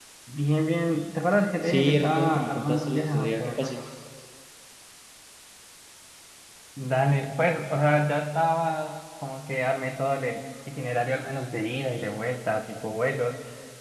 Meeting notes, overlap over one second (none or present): present